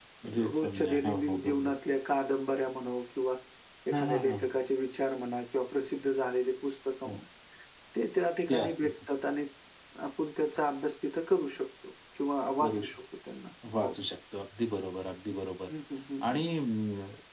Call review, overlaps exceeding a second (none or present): present